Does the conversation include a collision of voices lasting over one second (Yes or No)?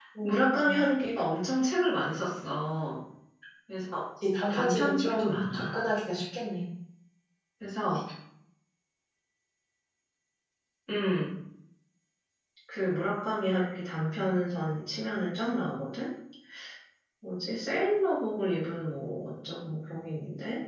Yes